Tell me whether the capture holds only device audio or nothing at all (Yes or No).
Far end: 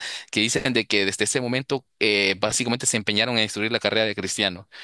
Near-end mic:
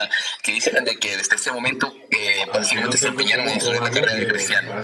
No